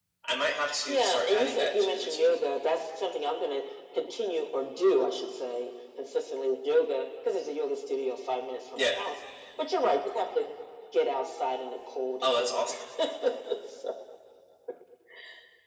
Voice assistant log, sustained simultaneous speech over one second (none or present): present